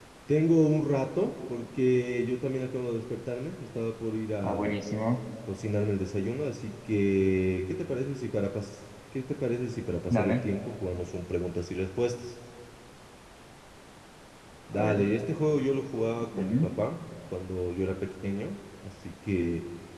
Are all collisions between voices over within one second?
Yes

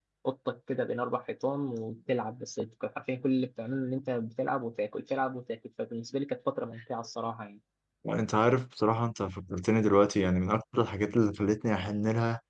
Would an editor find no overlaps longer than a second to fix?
Yes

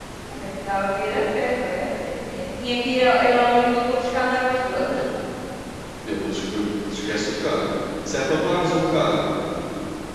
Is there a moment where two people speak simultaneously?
No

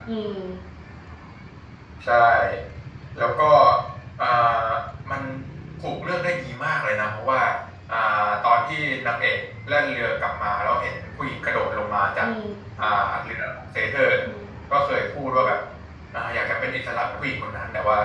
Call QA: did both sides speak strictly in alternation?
Yes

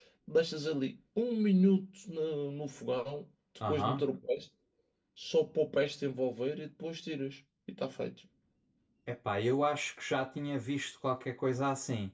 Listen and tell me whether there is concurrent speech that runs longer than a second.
No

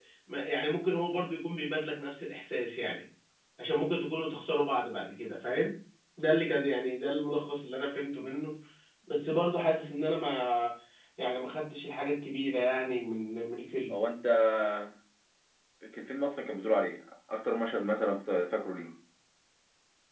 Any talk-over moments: No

